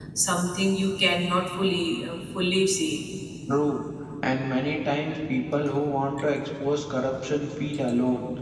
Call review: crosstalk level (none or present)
none